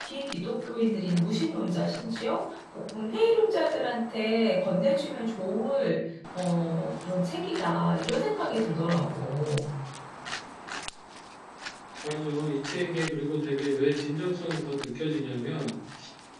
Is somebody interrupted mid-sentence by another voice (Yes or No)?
No